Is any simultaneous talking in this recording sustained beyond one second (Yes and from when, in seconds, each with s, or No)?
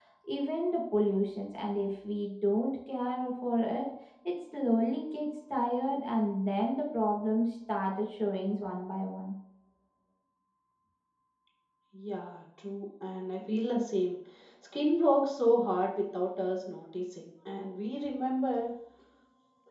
No